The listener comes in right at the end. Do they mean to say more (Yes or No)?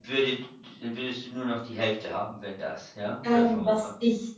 Yes